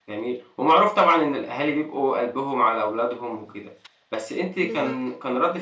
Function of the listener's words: listening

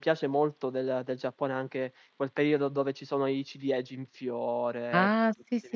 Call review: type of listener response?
taking over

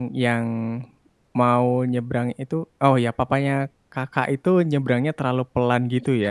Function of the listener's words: taking over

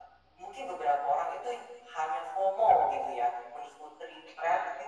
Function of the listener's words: listening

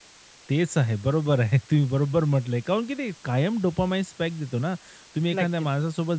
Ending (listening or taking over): listening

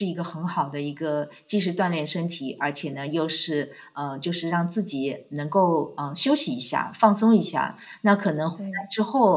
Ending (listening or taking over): listening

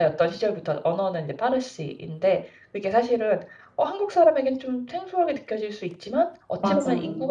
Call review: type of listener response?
listening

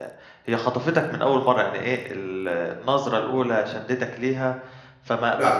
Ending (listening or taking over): taking over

